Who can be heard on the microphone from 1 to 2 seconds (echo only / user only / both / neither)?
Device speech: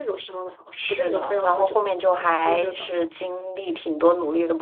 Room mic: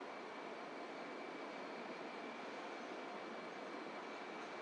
neither